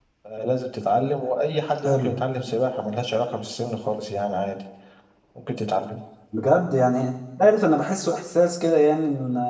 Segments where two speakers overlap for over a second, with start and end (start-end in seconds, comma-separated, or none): none